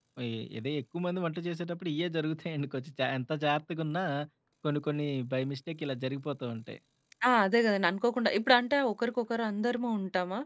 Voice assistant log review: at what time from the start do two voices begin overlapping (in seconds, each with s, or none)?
none